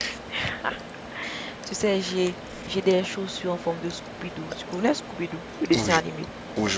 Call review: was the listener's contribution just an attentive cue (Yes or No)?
No